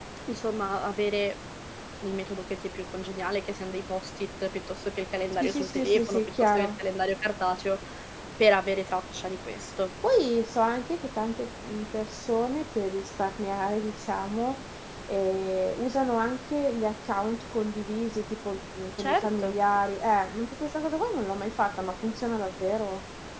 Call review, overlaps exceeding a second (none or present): present